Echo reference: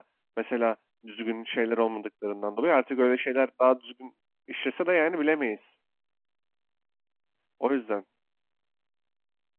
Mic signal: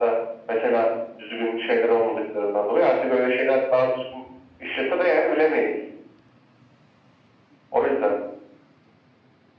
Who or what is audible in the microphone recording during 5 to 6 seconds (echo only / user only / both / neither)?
echo only